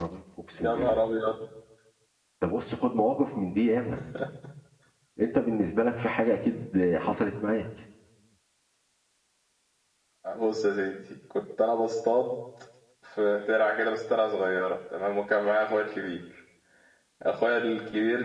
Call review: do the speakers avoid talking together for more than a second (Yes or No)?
Yes